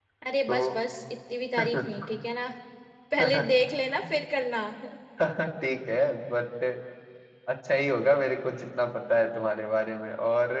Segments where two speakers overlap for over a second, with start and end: none

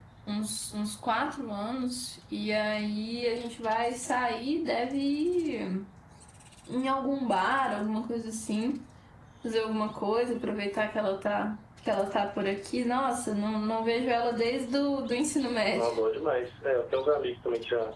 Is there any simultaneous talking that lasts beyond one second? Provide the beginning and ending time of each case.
none

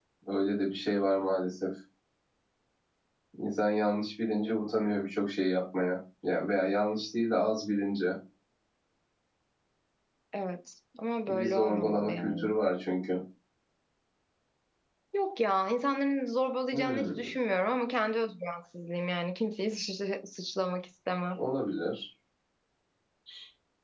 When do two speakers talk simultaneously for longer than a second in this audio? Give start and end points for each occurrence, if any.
11.3-12.5

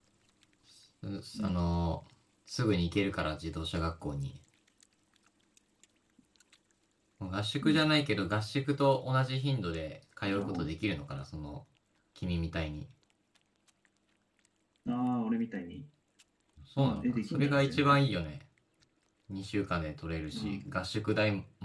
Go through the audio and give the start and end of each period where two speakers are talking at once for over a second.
16.8-18.1

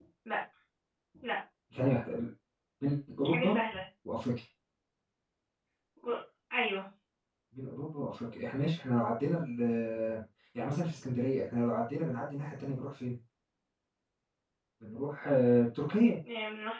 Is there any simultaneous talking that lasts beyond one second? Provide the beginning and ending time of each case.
none

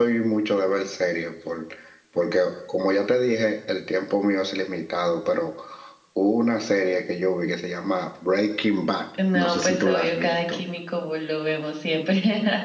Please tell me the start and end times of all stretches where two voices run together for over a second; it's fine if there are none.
9.3-10.6

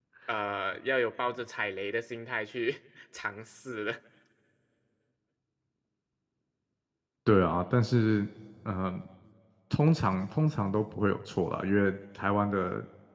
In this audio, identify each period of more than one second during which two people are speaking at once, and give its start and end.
none

